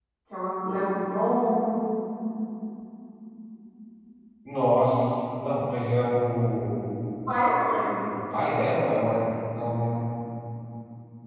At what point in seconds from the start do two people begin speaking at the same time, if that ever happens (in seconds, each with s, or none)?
none